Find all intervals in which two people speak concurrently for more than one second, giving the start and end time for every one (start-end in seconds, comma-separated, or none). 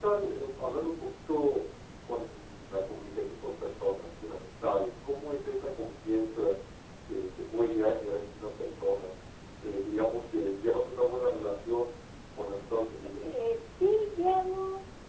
none